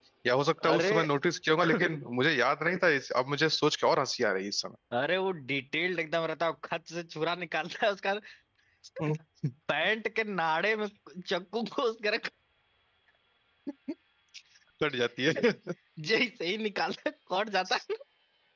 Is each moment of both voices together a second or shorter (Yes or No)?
Yes